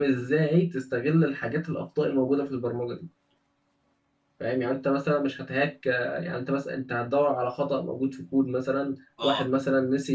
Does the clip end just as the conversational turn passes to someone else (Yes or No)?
No